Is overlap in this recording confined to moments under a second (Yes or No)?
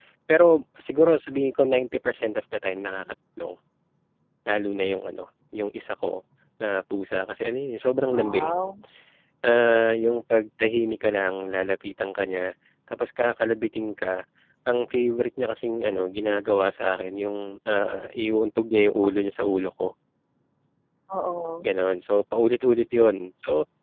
Yes